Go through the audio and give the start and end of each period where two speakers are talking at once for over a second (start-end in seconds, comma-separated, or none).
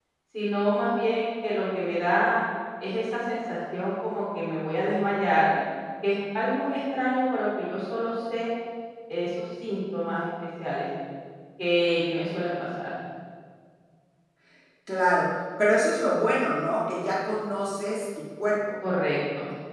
none